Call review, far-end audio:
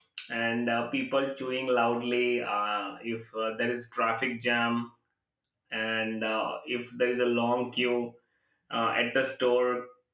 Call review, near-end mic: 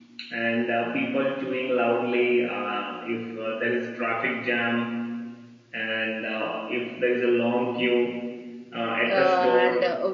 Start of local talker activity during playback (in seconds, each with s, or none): 9.1 s